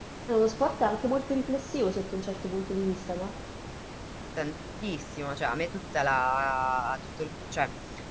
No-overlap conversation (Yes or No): Yes